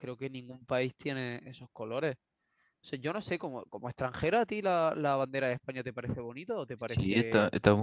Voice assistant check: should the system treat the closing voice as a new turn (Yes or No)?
Yes